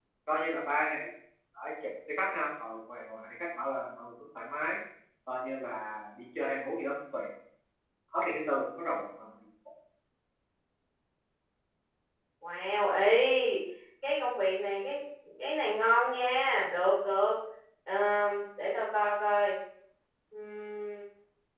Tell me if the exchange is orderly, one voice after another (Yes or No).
Yes